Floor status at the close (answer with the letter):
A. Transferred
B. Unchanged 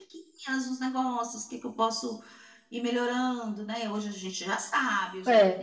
B